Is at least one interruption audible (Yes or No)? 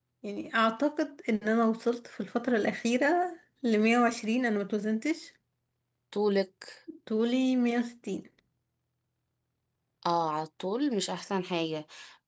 No